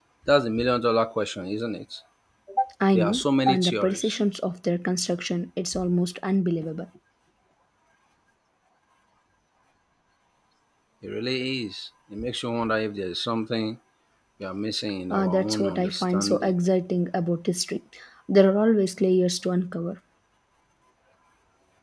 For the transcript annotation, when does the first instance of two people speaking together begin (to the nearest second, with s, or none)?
3 s